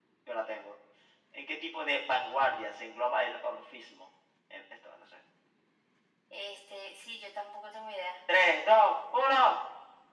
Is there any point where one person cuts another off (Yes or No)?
No